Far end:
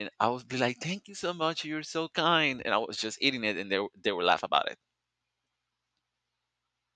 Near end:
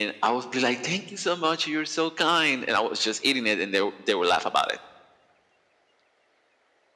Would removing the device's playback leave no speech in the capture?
Yes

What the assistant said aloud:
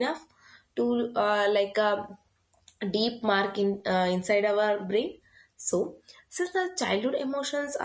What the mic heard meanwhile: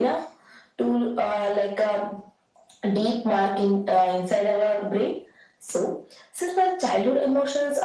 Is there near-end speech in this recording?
No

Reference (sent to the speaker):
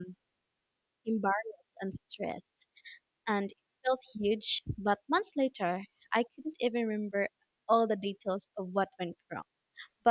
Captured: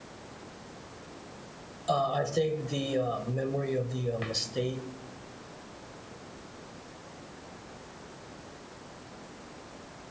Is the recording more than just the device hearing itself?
Yes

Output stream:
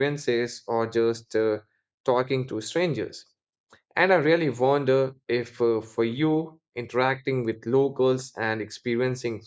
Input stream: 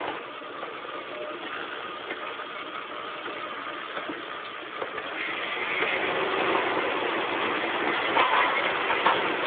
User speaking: No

